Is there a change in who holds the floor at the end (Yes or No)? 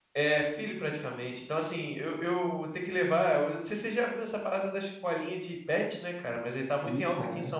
No